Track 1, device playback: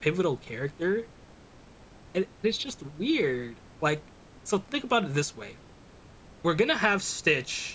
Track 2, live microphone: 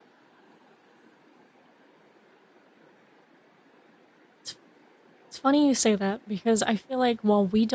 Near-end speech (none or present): present